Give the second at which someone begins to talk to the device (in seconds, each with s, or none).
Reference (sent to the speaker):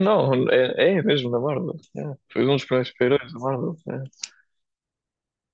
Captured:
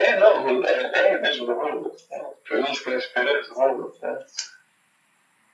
none